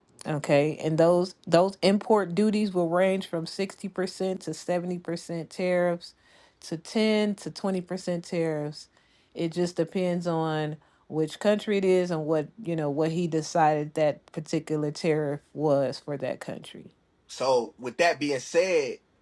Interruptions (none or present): none